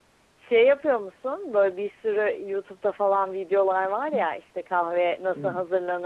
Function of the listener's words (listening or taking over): listening